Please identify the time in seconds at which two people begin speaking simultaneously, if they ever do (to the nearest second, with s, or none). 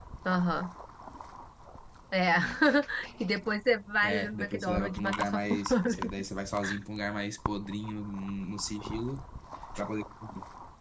4 s